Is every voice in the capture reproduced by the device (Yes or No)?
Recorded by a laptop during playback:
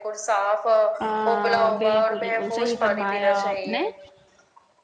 No